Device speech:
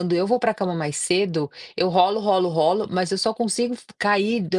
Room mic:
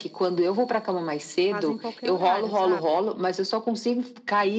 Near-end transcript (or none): fazem qualquer horário, sabe.